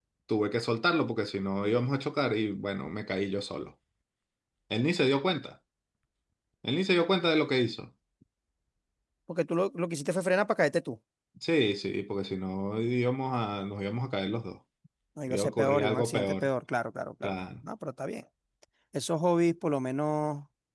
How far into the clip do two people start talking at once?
15.3 s

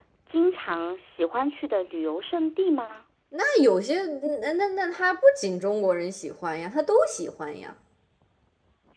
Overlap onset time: none

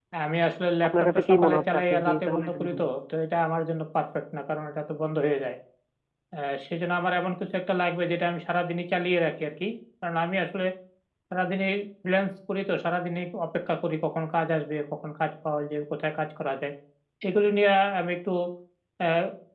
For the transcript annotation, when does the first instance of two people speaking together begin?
0.9 s

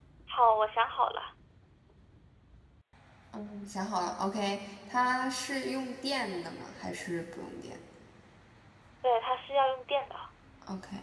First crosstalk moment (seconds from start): none

